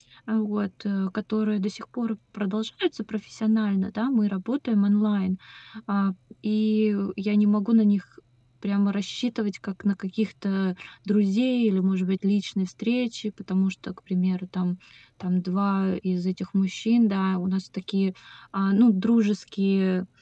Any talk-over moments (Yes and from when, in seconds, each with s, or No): No